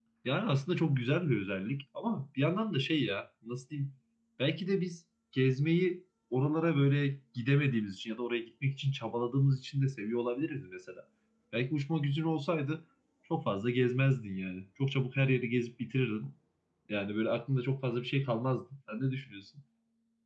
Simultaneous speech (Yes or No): No